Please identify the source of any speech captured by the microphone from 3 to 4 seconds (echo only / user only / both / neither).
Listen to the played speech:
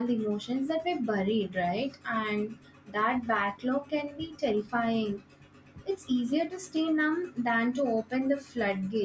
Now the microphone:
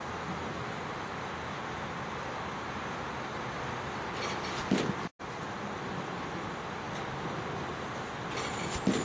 neither